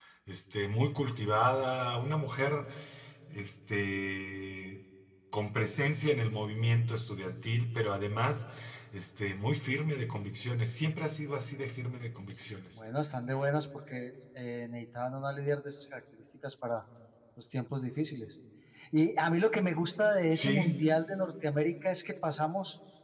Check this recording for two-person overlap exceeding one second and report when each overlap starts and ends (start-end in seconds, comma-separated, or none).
none